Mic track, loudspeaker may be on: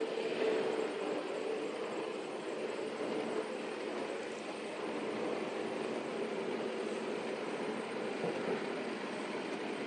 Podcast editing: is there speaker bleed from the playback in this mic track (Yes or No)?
No